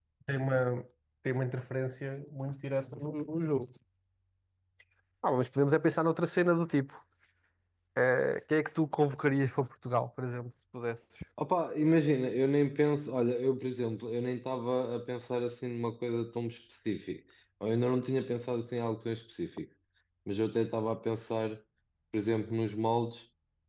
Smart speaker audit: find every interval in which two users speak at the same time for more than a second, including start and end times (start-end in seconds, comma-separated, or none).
none